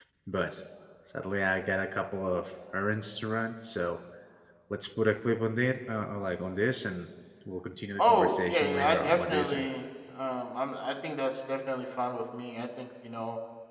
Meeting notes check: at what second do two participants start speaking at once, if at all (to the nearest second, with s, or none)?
8 s